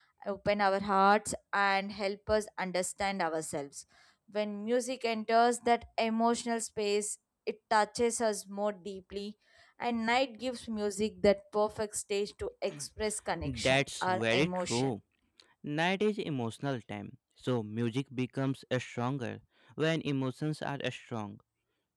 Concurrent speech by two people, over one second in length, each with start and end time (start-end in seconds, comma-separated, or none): 13.4-14.9